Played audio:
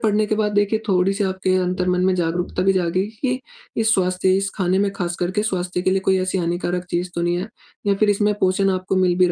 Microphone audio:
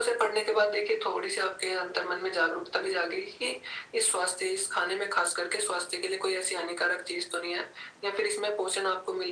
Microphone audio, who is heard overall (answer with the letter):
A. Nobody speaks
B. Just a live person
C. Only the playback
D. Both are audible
C